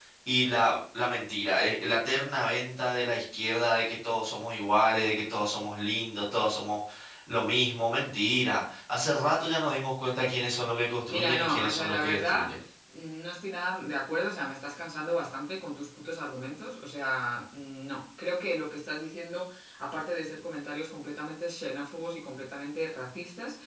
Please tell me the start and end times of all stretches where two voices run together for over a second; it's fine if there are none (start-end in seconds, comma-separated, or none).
11.1-12.5